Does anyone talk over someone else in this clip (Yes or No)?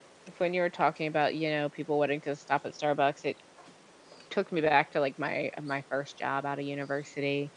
No